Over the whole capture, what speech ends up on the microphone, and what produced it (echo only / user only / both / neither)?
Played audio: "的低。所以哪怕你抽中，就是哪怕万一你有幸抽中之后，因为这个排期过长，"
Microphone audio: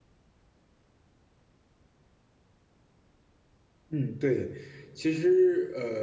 user only